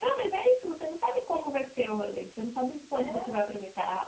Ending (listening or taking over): listening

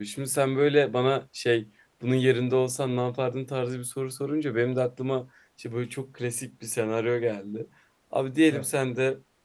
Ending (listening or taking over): listening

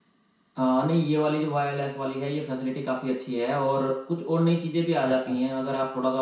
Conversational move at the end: listening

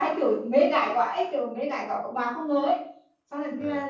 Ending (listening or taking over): listening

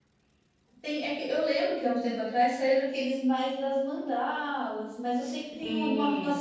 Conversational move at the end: listening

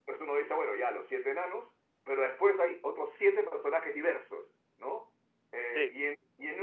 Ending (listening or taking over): listening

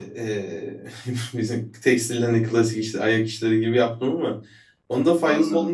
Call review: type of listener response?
listening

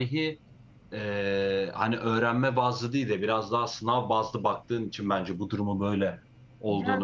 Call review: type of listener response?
taking over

